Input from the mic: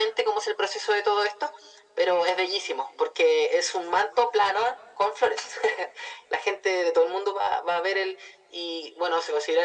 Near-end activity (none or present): none